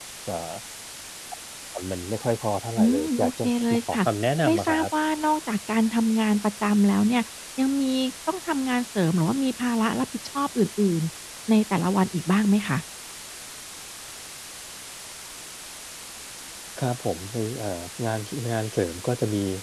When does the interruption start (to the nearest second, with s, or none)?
3 s